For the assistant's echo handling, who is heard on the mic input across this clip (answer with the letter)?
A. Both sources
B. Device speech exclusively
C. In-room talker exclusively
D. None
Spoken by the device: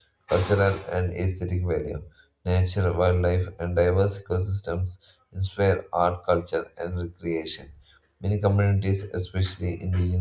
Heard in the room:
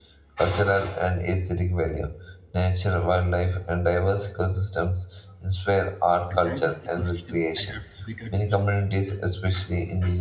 A